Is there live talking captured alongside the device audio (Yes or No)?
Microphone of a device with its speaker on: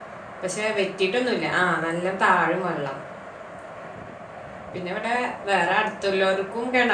Yes